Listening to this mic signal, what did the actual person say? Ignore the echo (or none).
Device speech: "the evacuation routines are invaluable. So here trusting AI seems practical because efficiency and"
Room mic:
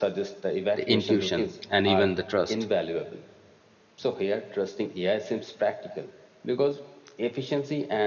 the intuition, and even the trust.